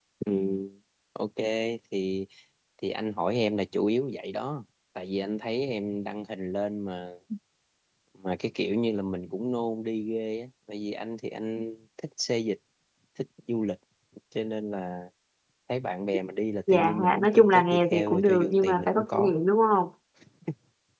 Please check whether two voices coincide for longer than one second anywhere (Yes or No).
Yes